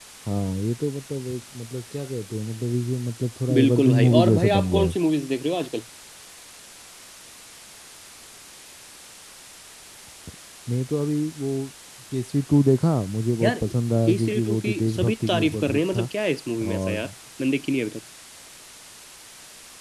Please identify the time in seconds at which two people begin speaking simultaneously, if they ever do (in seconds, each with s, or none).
3.6 s